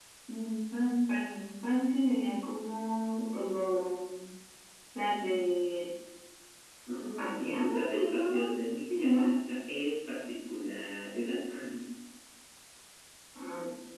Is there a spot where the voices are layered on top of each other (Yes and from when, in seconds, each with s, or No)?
Yes, from 7.2 s